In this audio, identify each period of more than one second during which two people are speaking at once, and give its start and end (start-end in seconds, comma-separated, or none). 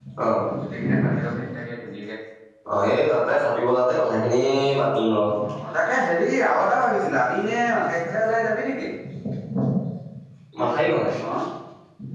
none